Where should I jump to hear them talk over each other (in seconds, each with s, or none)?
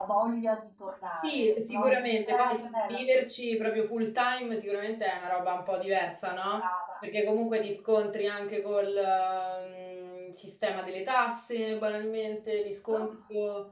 1.2 s